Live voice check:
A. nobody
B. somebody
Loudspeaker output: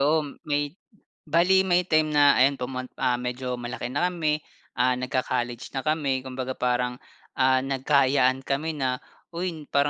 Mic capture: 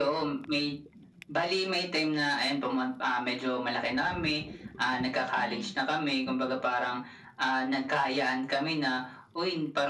B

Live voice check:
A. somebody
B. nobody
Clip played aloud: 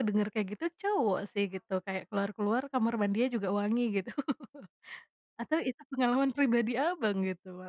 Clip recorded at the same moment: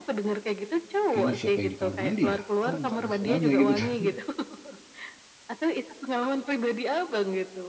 A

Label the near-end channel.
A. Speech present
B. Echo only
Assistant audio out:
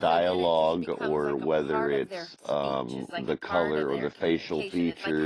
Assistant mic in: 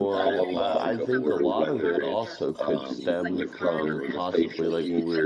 A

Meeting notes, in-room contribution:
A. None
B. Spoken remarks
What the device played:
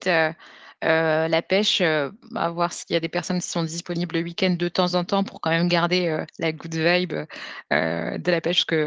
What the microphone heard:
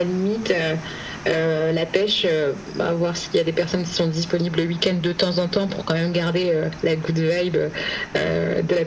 A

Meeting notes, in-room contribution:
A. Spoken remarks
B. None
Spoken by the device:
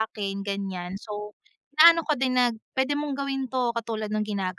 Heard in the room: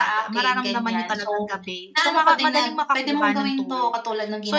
A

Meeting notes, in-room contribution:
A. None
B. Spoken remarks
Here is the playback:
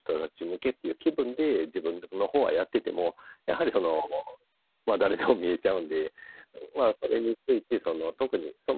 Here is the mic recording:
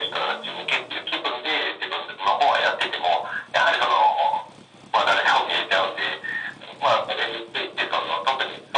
A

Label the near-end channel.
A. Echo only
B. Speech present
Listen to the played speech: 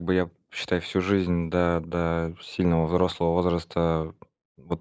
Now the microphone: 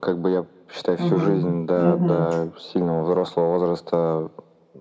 B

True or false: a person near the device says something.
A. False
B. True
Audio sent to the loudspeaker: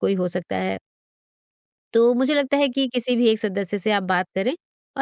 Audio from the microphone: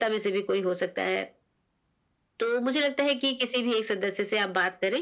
A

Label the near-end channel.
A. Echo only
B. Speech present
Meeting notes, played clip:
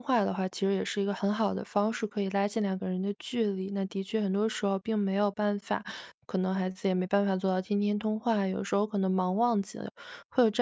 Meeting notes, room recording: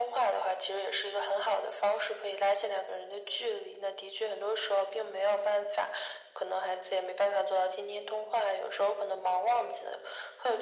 A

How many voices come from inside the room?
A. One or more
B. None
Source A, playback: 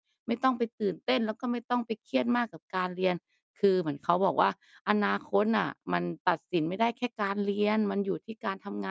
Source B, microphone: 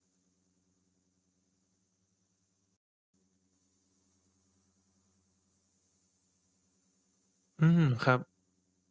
A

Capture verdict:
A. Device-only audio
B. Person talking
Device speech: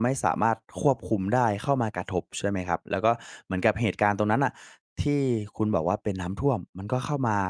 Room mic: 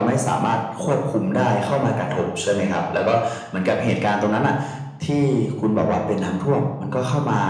A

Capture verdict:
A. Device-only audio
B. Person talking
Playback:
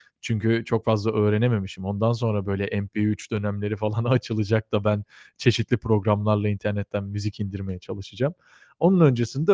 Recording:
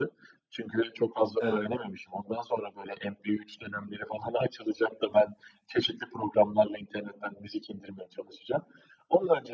B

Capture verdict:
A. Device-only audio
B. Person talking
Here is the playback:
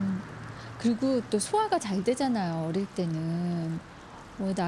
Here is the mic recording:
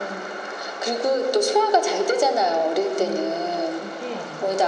B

